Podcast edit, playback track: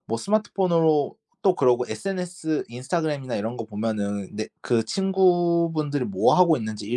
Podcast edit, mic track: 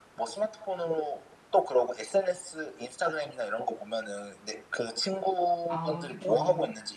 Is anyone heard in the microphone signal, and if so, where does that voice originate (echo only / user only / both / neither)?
both